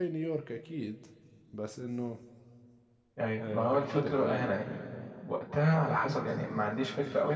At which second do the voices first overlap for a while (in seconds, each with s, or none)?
3.4 s